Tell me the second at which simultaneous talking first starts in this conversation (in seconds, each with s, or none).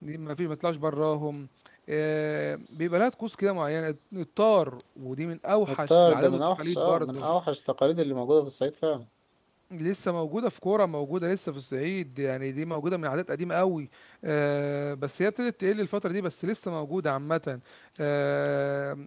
5.7 s